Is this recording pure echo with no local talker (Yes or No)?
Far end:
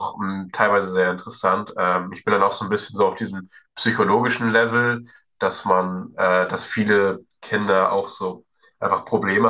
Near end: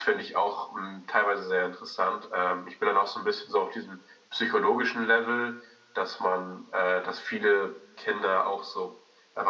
Yes